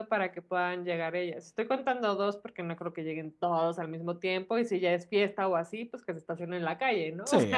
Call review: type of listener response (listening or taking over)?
taking over